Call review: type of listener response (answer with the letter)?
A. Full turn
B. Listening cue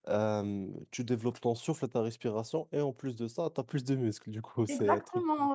A